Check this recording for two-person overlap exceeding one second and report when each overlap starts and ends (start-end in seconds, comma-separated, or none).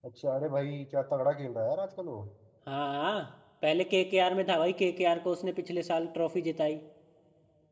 none